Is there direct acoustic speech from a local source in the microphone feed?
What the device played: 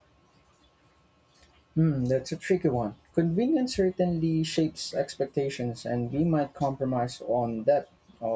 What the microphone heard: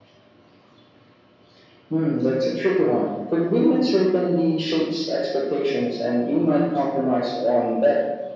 No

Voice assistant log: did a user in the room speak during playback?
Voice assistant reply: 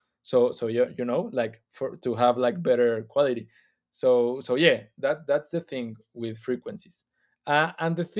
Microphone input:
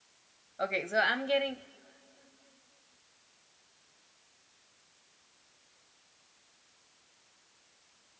Yes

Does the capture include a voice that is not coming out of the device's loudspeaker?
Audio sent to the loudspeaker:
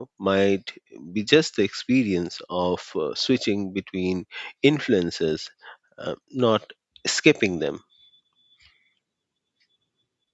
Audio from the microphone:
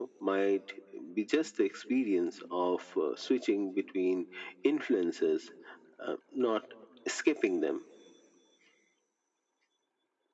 No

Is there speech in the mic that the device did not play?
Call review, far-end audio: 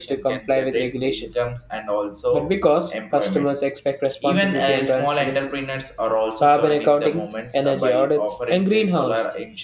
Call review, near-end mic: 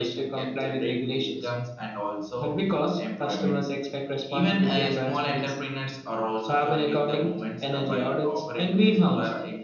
No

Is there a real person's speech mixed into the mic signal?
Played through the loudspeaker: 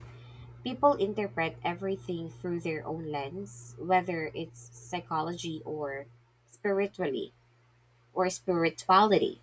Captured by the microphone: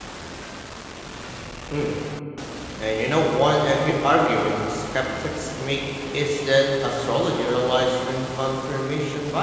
Yes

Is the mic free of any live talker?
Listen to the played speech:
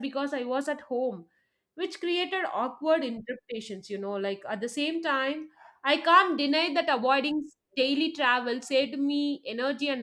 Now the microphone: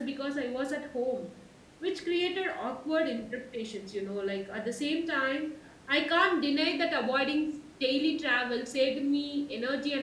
Yes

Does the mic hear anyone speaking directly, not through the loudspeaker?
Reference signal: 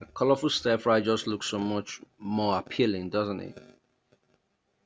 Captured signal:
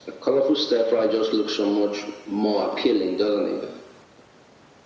No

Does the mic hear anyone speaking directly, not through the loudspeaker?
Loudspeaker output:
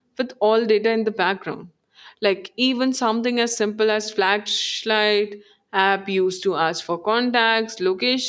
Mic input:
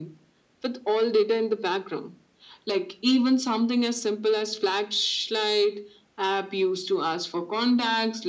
No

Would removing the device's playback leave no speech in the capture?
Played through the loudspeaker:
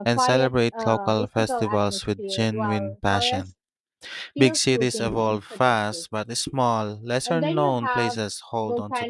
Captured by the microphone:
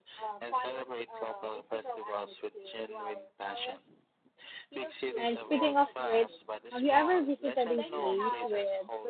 No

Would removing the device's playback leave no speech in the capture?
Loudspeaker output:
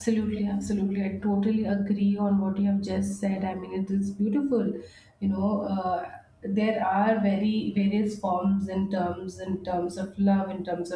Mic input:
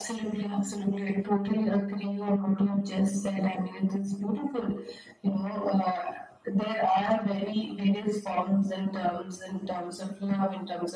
Yes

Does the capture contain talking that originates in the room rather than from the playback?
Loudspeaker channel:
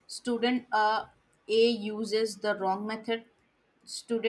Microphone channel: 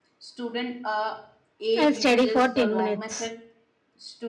Yes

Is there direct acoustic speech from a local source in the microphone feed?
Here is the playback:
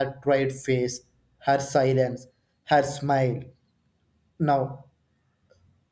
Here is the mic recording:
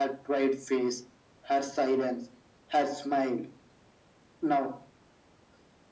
No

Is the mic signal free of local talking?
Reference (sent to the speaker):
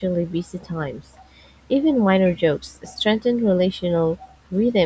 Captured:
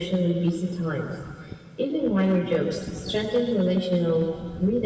Yes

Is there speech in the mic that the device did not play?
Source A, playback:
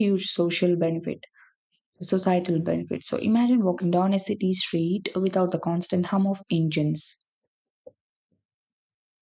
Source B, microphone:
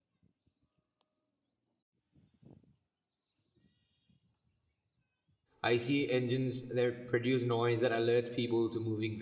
Yes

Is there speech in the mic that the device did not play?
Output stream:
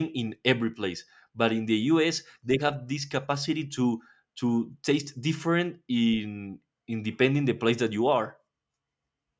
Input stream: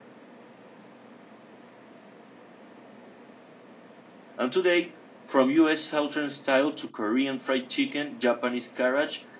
Yes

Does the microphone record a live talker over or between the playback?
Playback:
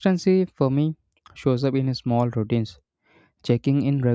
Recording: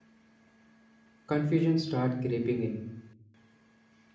Yes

